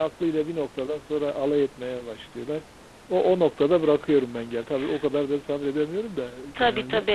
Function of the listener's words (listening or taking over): taking over